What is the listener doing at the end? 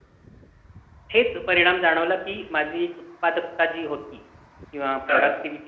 listening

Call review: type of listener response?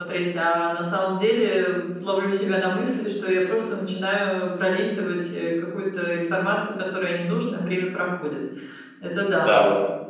taking over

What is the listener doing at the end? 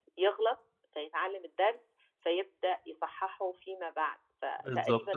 taking over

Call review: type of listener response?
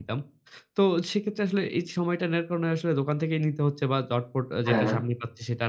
listening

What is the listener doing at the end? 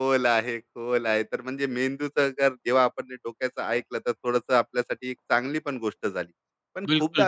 listening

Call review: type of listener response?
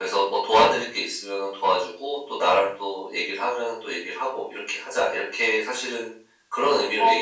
taking over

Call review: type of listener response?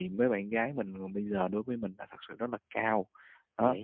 listening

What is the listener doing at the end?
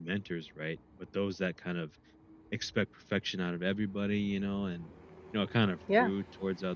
listening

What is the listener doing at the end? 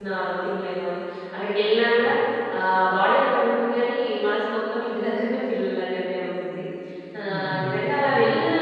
listening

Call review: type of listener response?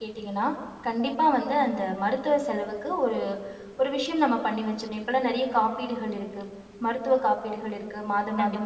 listening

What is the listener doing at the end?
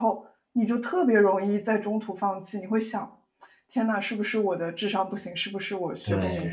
taking over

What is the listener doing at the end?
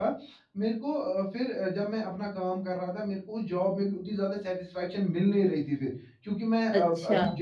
listening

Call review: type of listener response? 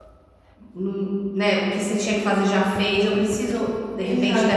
taking over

